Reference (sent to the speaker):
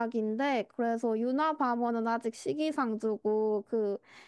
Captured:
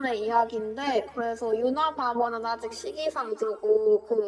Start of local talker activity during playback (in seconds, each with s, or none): none